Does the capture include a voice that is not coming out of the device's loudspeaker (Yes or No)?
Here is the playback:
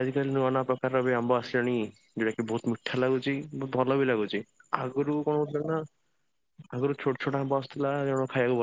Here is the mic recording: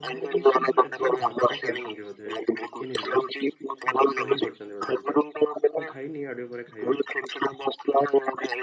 Yes